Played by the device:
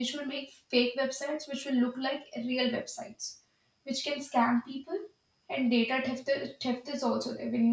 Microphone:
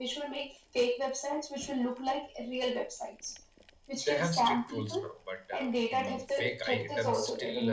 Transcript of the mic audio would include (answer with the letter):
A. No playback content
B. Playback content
B